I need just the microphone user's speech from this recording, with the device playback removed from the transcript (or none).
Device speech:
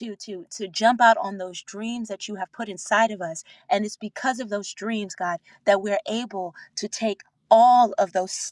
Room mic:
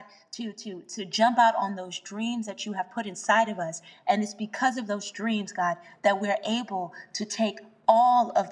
none